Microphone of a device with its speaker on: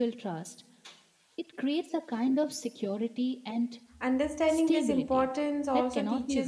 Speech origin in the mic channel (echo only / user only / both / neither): both